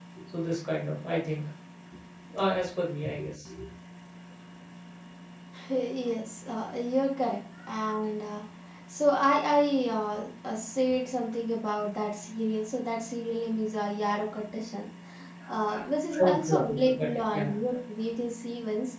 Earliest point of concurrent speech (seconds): 16.2 s

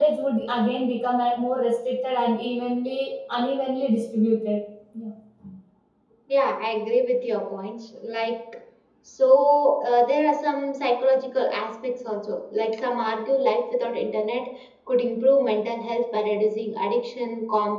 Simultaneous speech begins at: none

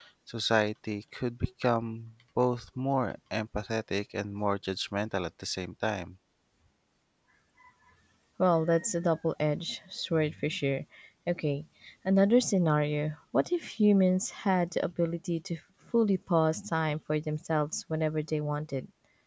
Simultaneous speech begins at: none

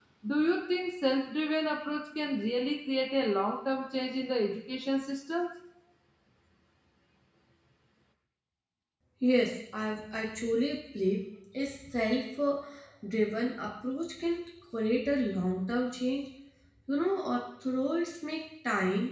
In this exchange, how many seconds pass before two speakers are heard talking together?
none

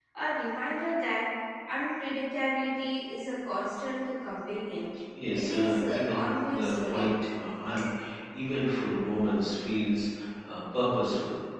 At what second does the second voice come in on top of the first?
5.3 s

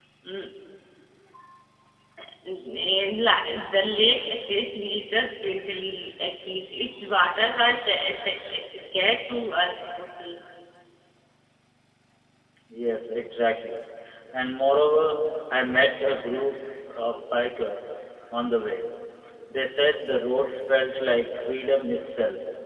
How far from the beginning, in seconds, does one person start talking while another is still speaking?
none

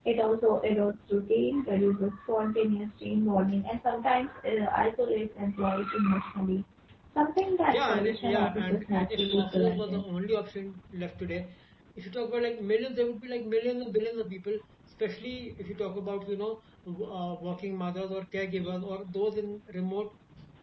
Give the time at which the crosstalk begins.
7.7 s

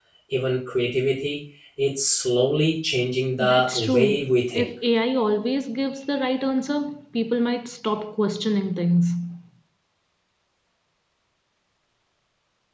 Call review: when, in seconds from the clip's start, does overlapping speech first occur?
3.4 s

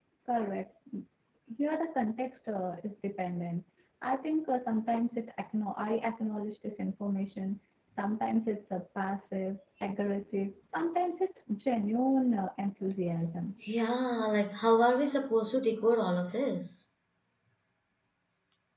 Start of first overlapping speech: none

